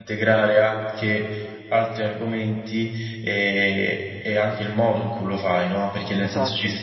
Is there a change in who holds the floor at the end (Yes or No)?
No